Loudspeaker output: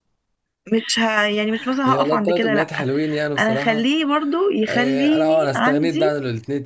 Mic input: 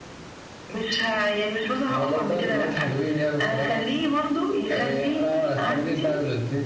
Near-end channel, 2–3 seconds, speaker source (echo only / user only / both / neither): echo only